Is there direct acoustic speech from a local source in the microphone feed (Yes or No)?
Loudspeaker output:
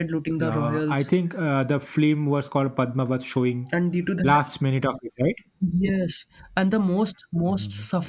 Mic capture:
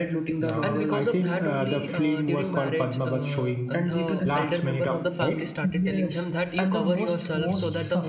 Yes